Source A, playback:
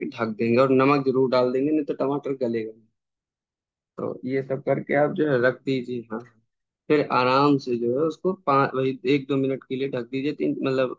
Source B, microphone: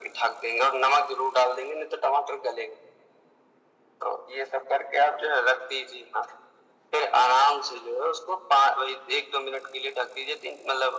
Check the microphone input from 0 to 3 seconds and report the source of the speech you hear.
echo only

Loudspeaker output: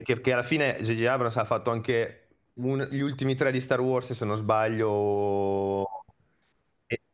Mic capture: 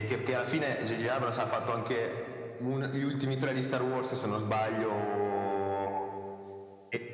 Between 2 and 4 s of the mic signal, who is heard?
echo only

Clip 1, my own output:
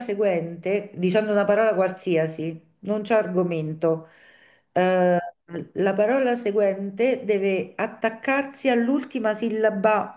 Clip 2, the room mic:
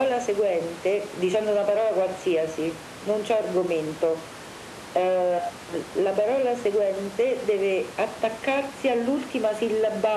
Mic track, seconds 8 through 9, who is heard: echo only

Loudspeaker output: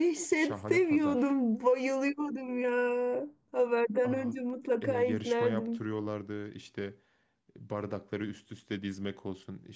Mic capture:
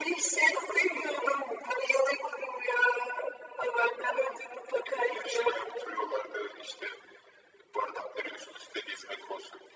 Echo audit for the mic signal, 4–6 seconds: echo only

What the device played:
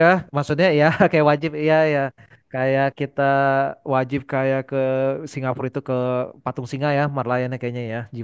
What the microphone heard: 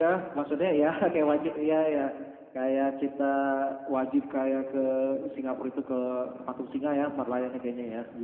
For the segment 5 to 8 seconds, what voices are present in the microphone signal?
echo only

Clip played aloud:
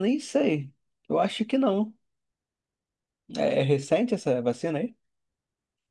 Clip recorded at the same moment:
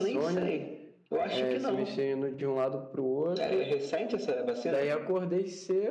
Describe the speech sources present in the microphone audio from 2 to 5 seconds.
both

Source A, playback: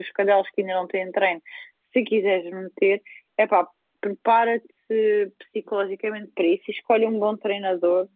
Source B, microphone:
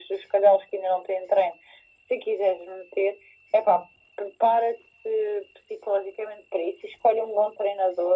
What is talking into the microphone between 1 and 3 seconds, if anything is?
echo only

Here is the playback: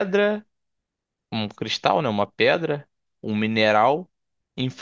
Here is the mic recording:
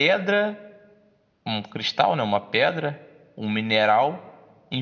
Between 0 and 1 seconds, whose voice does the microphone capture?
echo only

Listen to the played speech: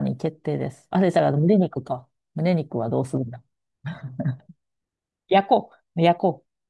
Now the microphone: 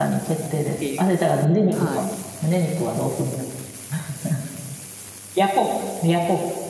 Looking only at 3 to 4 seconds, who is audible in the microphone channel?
echo only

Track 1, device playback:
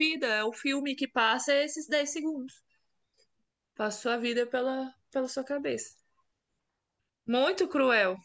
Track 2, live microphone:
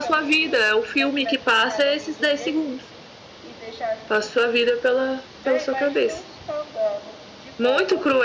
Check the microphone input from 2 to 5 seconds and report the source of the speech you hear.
both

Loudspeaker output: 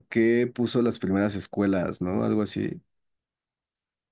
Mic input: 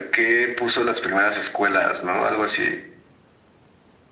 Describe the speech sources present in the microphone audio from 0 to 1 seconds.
echo only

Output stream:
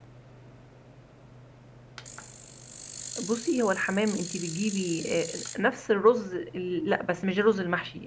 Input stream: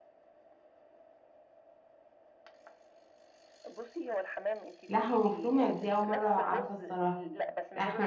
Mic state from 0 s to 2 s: neither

